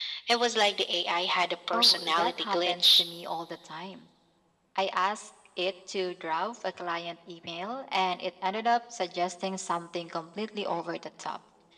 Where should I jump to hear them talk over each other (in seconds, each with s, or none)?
1.7 s